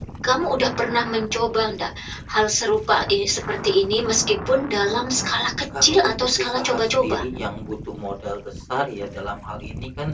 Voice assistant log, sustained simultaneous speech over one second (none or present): present